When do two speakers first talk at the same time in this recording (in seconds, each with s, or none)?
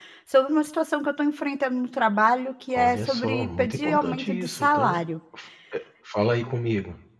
2.8 s